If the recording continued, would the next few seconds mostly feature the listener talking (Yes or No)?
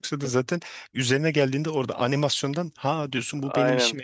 Yes